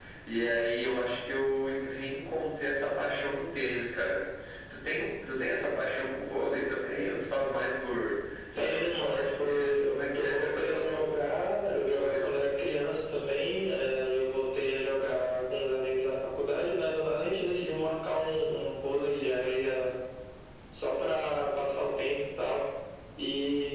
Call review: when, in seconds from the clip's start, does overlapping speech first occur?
8.6 s

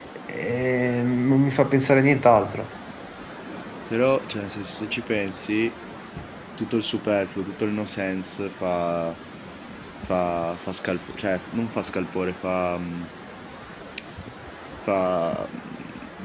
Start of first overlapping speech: none

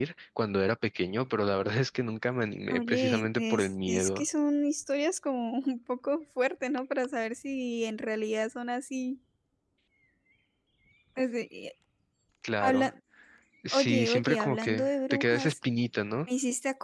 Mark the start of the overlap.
2.7 s

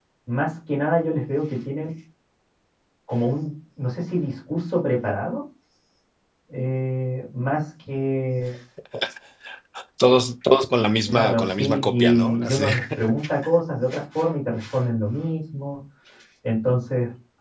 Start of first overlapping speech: 11.1 s

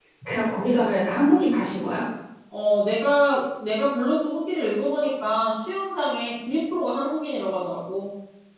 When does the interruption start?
none

